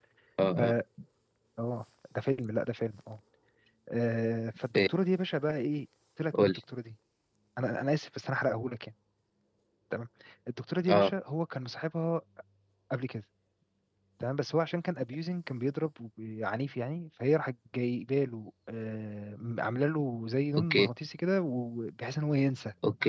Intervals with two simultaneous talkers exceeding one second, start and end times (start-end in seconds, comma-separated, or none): none